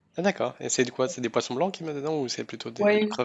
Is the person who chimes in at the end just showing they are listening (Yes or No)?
No